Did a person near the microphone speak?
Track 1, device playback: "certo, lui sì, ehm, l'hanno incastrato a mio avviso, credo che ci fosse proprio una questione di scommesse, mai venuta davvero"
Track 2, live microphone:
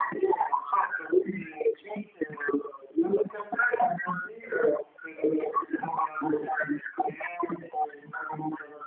No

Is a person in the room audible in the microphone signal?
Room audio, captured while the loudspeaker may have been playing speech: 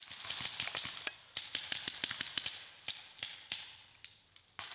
No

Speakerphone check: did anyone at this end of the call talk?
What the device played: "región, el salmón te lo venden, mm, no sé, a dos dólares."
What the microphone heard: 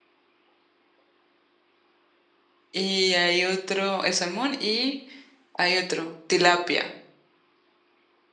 Yes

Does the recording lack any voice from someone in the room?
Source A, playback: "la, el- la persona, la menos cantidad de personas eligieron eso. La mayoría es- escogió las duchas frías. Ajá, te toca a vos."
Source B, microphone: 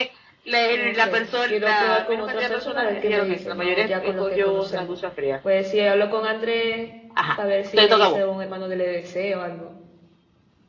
No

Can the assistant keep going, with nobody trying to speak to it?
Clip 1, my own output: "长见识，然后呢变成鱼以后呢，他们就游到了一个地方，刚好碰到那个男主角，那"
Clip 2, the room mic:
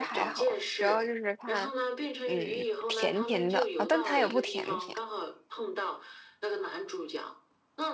No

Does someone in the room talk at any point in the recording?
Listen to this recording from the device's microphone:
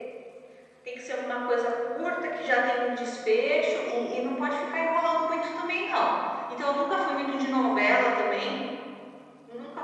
No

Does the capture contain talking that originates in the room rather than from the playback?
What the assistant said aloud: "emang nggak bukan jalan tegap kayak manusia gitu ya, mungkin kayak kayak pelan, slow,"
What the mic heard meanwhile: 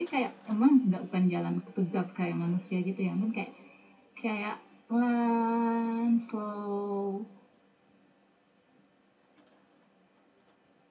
No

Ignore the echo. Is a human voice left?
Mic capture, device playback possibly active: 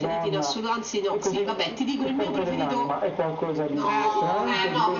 Yes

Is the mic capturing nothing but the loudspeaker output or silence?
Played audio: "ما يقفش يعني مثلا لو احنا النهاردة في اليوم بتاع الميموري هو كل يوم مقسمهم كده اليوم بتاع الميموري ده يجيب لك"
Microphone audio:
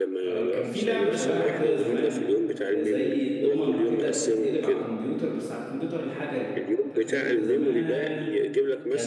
No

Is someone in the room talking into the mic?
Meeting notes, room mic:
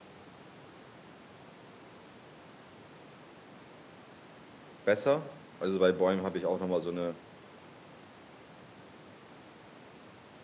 Yes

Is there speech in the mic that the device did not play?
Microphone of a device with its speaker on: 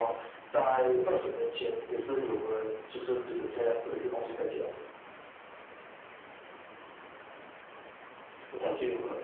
No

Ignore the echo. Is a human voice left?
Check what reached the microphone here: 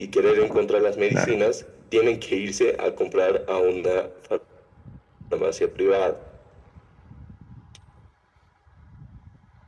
Yes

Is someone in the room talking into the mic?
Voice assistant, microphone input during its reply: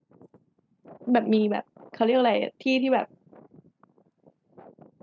Yes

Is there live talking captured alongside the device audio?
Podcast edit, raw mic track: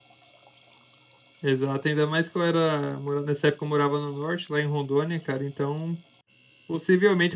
Yes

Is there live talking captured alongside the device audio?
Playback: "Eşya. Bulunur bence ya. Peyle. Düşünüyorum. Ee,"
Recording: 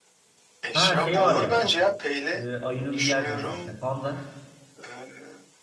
Yes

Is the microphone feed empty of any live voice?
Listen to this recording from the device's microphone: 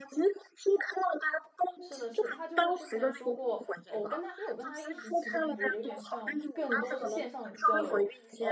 No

